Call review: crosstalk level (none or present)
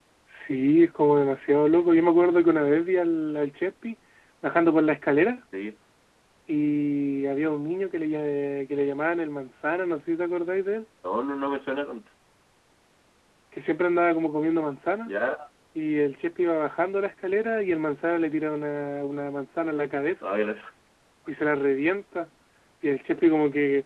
none